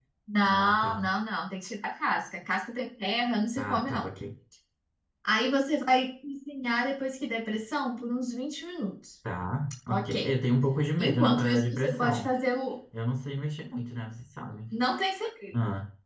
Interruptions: present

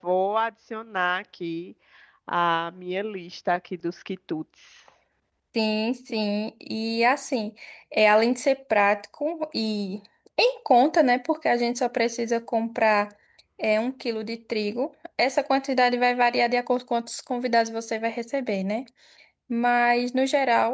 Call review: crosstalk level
none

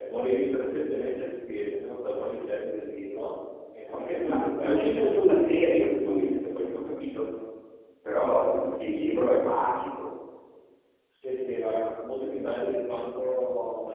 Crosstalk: present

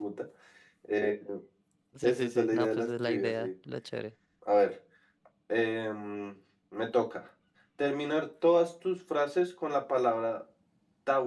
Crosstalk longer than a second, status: present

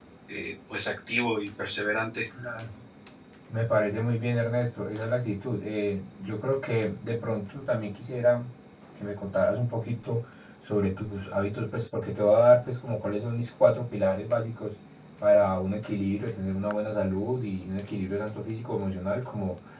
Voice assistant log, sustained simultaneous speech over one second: none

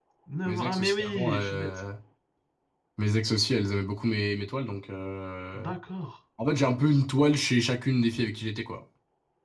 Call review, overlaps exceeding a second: present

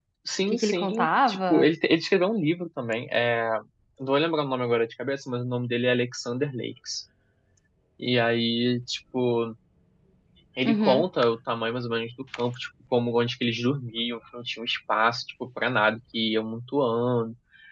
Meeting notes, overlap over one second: present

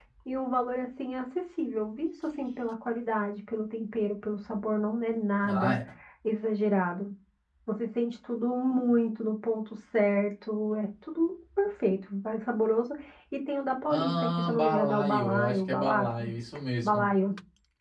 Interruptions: present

